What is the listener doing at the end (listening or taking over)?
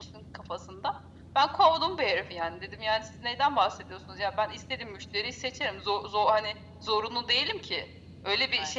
listening